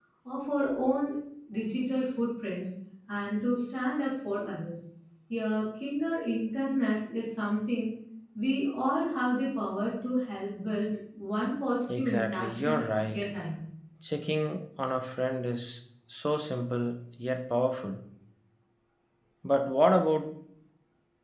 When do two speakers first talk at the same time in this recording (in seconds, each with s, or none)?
11.9 s